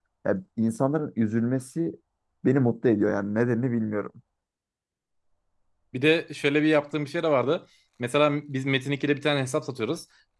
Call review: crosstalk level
none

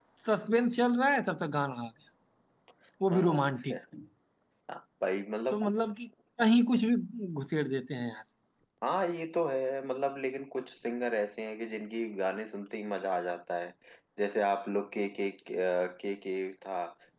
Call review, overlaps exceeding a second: none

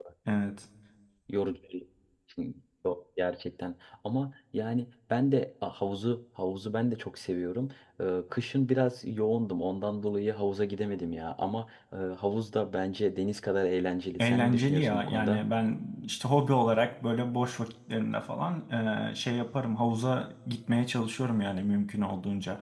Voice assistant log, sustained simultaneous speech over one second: present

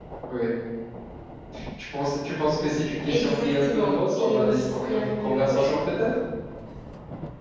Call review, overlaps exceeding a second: present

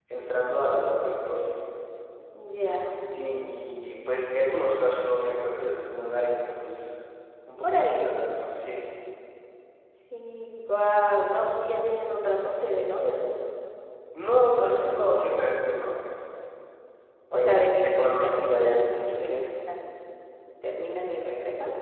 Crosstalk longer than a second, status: present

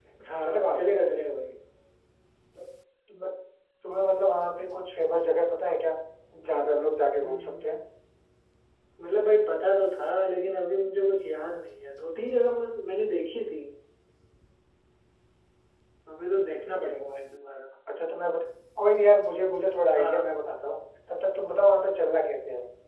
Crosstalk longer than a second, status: none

